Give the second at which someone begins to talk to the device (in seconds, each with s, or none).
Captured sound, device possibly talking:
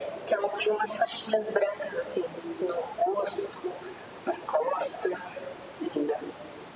none